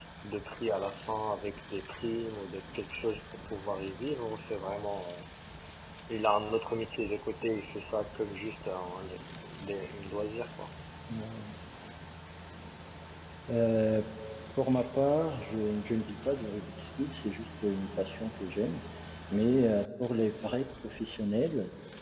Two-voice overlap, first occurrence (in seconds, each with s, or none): none